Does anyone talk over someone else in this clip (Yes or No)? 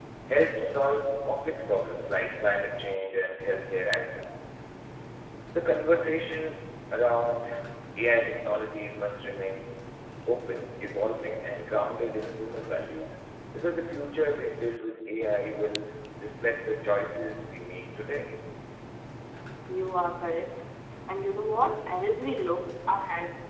No